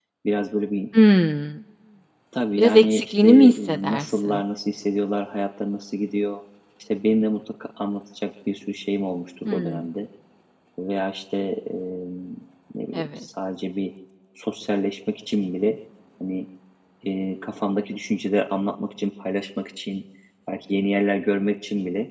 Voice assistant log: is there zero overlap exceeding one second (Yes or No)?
No